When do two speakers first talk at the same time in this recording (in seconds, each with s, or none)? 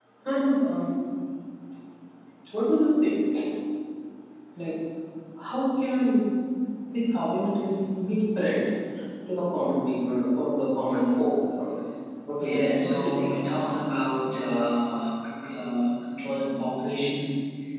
12.4 s